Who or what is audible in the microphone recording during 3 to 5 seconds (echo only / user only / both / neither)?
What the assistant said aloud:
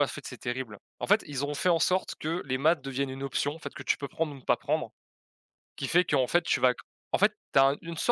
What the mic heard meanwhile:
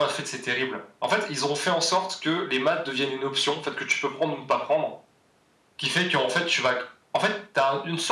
echo only